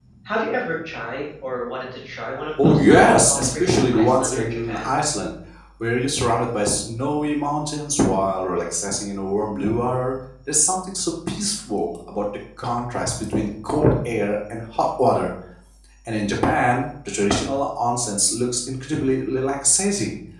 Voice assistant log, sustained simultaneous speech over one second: present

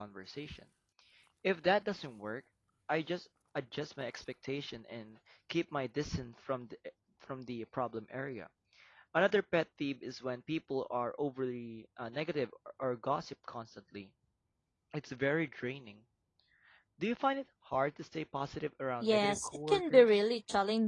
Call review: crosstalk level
present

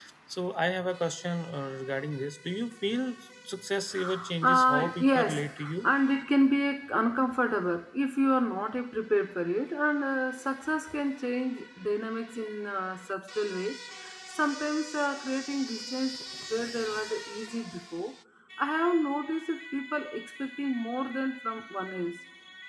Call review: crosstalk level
present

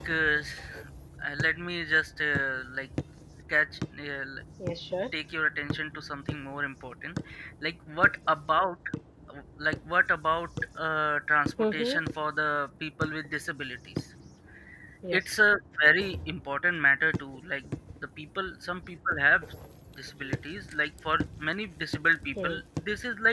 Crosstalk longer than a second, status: none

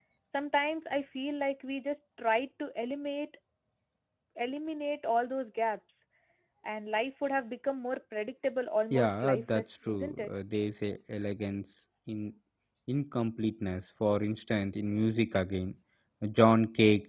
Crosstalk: present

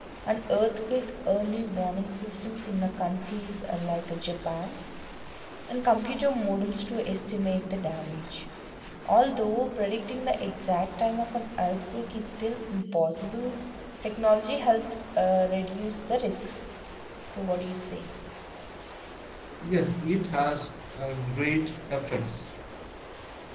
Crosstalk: none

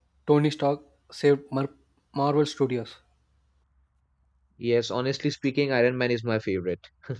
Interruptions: none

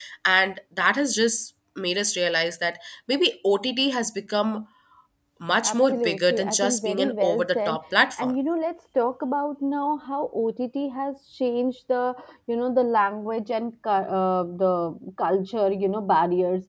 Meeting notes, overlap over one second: present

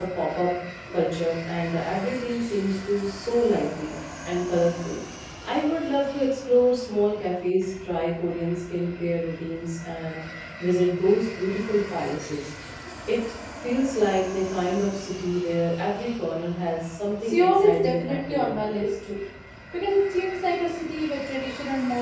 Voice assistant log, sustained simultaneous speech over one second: present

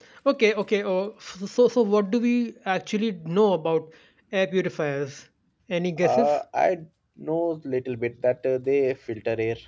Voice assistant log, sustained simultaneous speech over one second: none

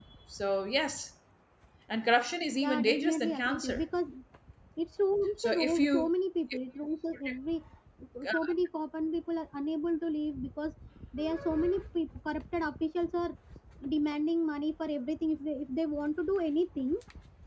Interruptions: present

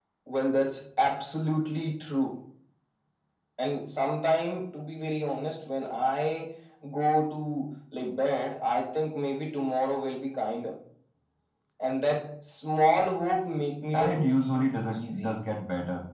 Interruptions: present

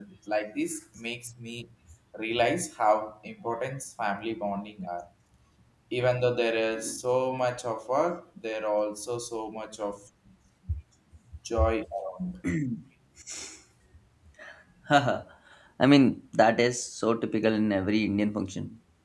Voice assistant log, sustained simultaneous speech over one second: none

